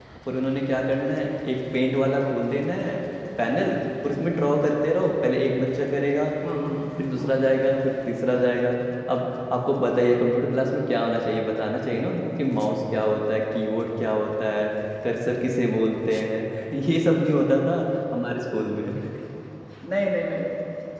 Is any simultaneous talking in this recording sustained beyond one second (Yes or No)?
No